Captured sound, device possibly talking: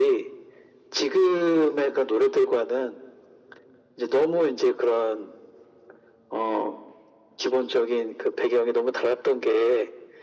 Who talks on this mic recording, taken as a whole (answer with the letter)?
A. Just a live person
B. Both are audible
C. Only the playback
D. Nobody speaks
C